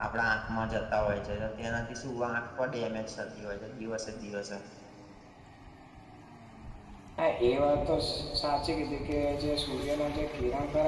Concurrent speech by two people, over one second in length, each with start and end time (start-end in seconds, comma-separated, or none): none